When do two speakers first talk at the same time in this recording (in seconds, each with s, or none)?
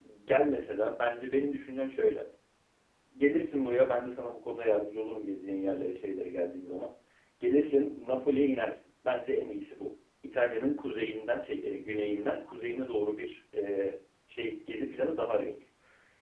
none